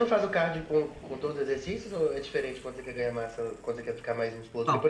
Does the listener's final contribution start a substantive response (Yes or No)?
No